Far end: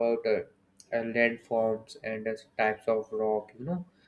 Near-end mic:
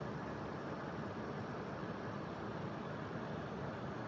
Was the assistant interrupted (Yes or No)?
No